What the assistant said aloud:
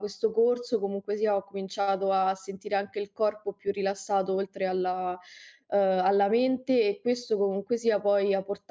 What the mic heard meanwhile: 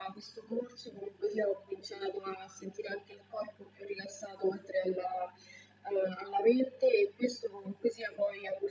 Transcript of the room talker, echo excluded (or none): none